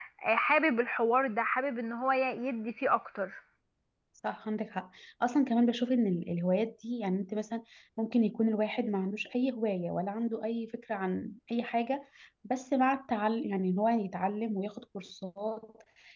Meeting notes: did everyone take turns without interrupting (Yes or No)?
Yes